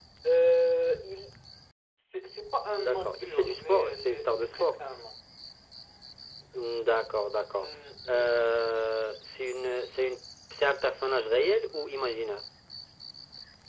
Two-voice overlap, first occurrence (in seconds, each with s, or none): 2.8 s